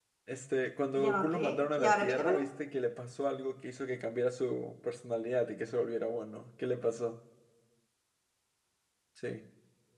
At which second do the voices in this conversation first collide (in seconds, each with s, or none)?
1.0 s